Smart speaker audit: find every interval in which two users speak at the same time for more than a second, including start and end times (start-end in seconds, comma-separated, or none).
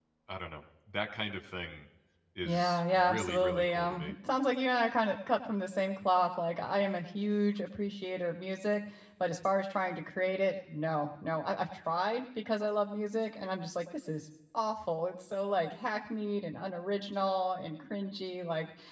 2.4-4.1